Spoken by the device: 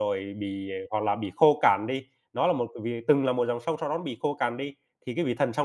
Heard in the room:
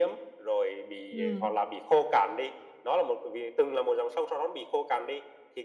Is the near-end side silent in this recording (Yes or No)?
No